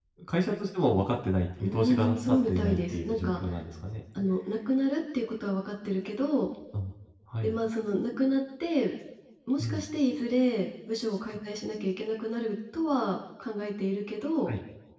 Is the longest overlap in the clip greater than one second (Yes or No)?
Yes